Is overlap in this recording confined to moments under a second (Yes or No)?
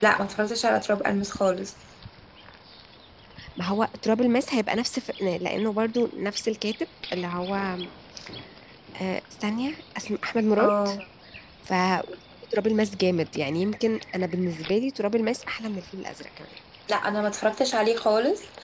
Yes